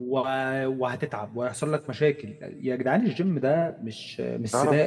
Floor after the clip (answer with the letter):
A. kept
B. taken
B